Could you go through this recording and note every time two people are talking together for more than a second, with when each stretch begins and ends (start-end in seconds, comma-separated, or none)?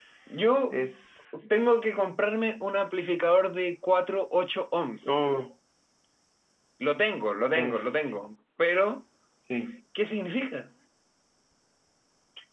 none